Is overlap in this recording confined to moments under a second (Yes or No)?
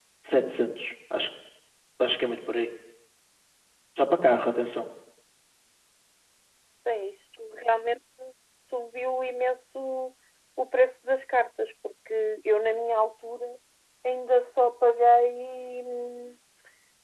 Yes